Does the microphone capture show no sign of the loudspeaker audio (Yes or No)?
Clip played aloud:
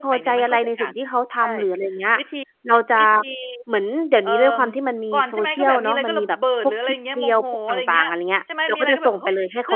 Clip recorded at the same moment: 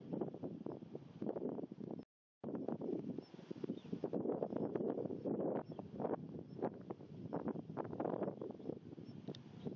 Yes